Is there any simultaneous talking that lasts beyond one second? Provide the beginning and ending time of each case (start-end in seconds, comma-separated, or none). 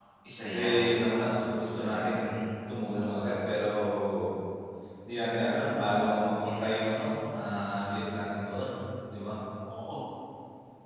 none